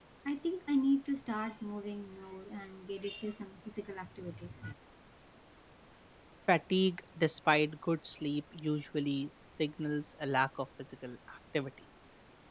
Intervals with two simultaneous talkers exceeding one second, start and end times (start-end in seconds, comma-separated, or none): none